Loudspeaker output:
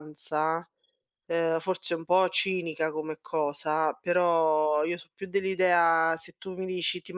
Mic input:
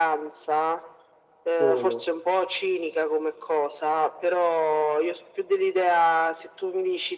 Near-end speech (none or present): present